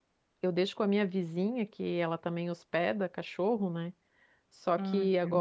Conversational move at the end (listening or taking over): listening